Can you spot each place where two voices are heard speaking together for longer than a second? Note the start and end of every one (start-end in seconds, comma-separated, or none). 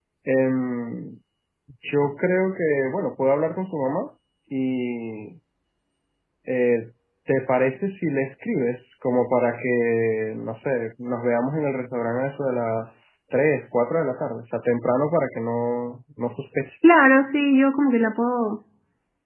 none